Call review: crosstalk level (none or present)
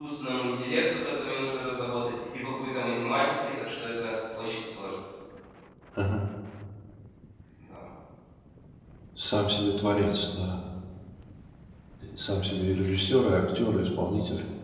none